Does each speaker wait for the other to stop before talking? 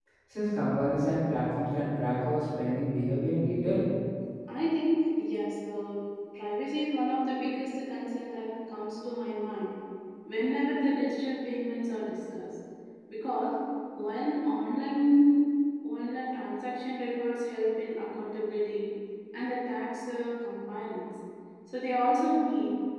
Yes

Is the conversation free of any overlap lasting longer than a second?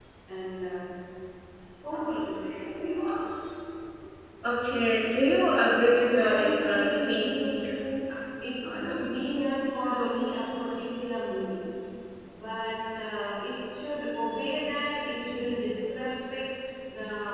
No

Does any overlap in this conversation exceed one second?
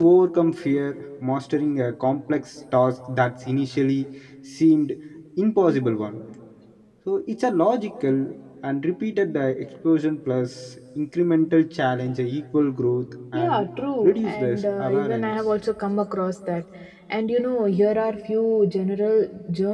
Yes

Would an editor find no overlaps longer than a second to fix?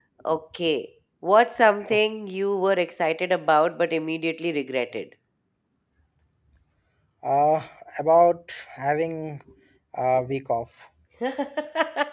Yes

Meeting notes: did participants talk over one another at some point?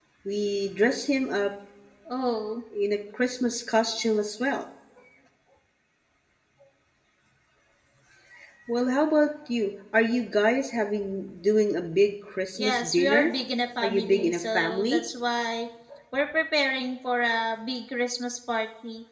Yes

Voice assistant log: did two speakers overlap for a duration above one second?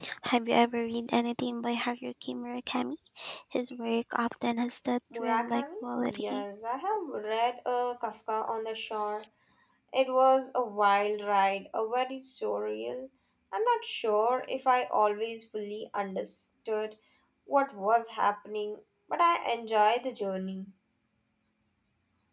Yes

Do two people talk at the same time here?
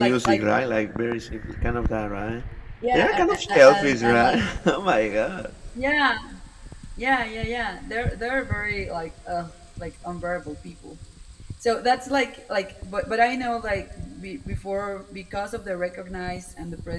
Yes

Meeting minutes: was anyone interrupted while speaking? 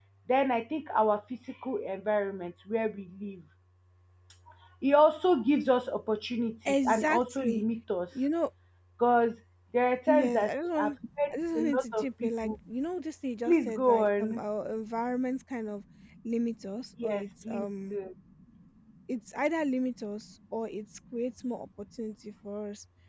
Yes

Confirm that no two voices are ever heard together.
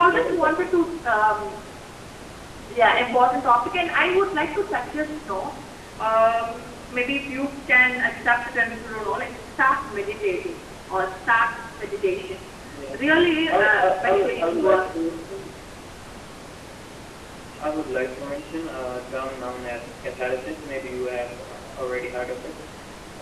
No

